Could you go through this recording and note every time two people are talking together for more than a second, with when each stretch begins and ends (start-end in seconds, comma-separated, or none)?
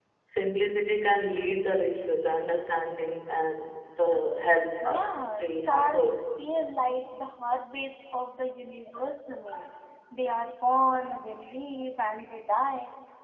4.8-6.2